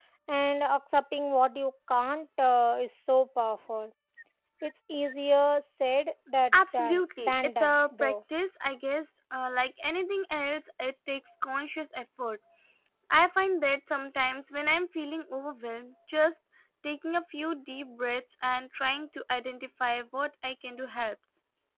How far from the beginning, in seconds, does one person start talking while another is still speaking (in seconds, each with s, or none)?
6.5 s